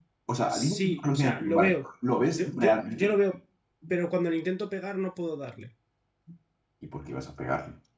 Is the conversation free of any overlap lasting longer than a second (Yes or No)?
No